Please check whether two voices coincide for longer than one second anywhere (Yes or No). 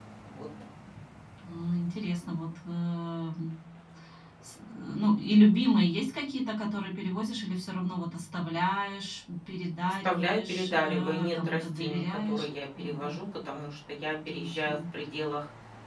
Yes